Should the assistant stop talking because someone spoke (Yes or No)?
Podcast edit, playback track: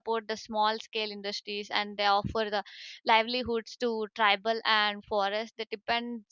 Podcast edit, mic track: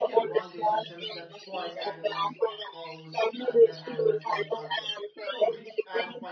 Yes